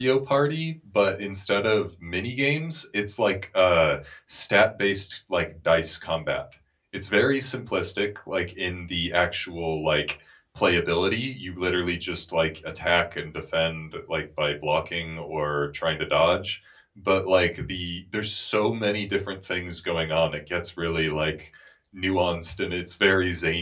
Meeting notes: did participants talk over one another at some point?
No

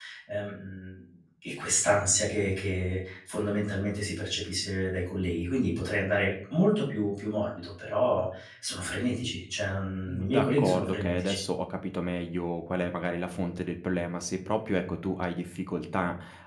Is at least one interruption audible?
Yes, from 10.1 s

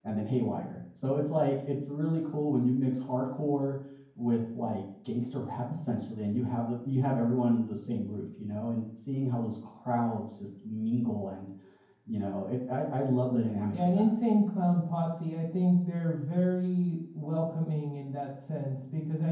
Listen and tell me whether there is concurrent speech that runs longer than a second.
No

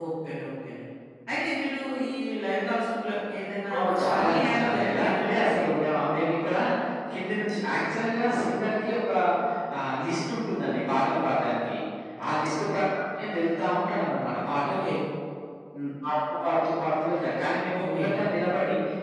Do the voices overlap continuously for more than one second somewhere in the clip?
Yes, from 3.8 s

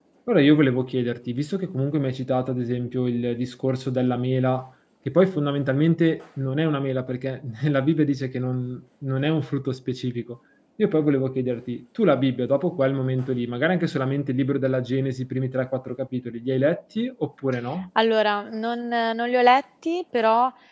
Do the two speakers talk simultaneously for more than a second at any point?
No

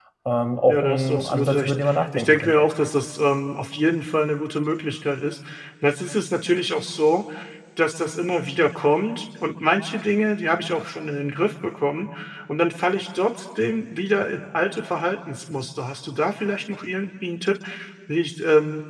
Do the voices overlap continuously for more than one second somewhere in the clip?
Yes, from 0.7 s

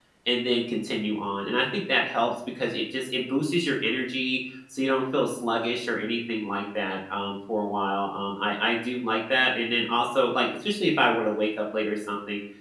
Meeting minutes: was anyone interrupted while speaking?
No

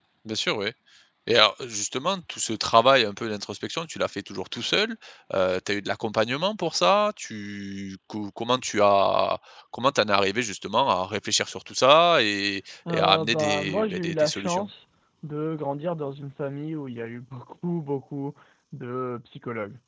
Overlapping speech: Yes, from 12.9 s

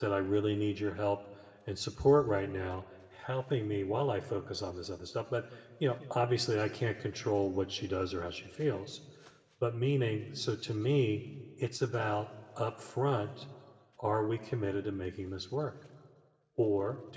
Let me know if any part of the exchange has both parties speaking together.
No

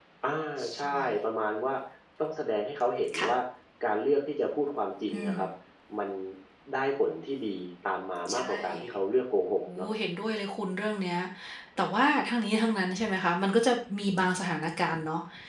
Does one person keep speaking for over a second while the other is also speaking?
No

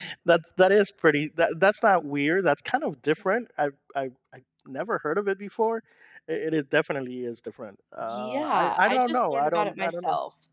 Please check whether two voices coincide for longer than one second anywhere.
Yes, from 8.1 s

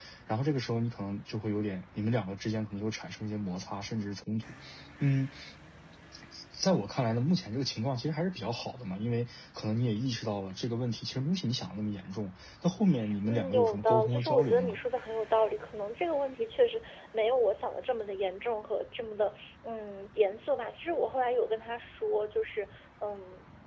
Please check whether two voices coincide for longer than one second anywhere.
Yes, from 13.2 s

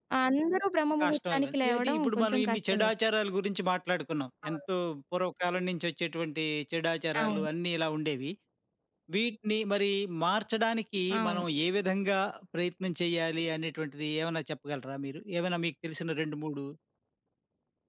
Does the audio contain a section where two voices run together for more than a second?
Yes, from 1.0 s

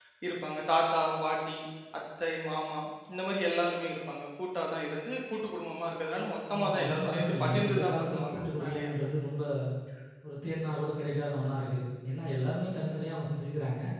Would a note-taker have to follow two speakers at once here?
Yes, from 6.5 s

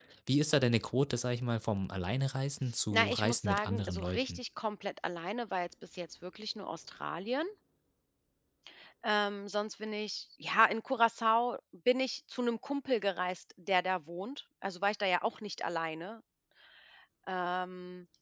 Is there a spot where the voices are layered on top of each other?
Yes, from 2.9 s

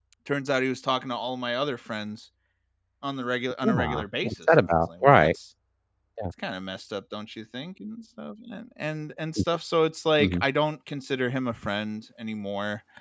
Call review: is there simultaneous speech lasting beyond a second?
Yes, from 3.6 s

